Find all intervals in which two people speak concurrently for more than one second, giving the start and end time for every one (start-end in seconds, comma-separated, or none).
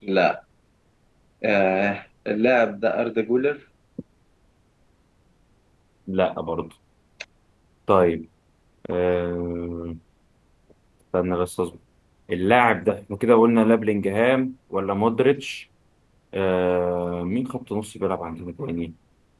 none